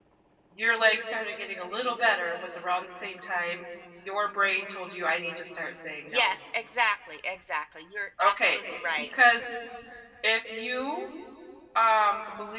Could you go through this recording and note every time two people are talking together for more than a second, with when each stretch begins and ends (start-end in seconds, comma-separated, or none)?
none